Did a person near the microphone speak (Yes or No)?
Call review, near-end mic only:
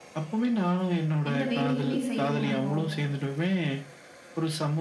Yes